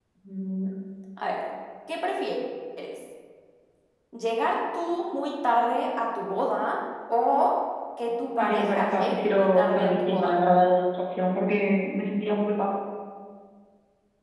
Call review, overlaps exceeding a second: present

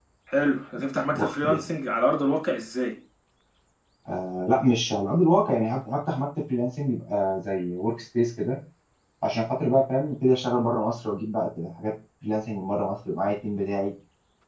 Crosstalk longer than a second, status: none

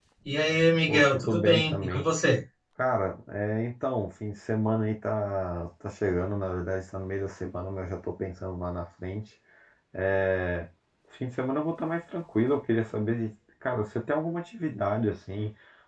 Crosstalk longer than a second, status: present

